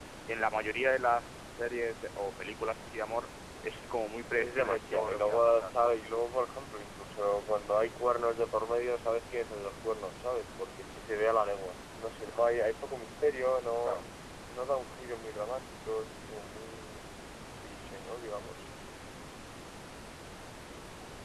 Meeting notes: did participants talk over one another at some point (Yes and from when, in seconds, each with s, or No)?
Yes, from 4.4 s